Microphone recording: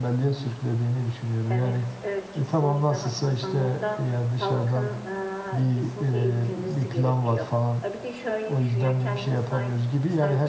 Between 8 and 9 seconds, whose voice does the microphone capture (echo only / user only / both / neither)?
both